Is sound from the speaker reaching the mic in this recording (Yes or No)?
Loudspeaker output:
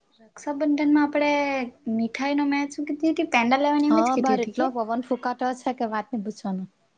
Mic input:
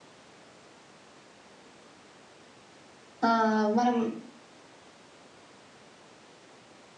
No